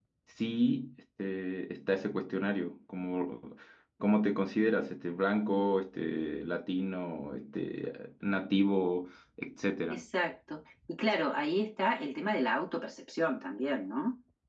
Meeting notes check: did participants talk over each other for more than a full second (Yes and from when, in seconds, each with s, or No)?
No